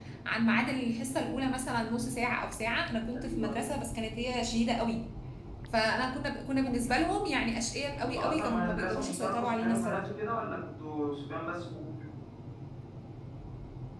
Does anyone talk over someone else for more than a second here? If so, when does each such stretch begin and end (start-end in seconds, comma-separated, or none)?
7.9-10.1